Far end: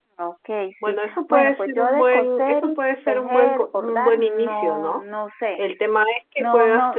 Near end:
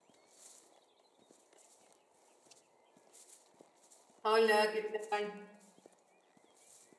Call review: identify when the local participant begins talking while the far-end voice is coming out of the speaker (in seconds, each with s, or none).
4.2 s